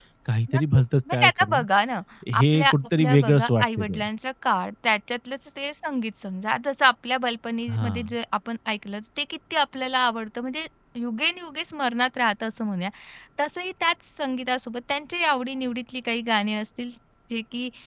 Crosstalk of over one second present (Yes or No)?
Yes